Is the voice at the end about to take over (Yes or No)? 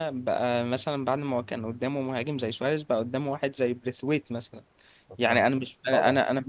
No